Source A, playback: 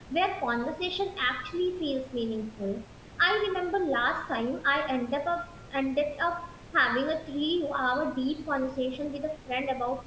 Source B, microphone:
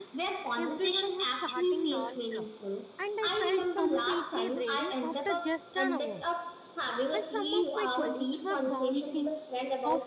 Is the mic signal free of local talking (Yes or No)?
No